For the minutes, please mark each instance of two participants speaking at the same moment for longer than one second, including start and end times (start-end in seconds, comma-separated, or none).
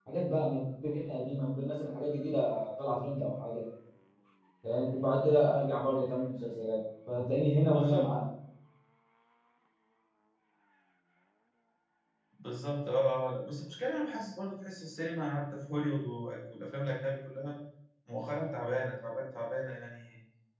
none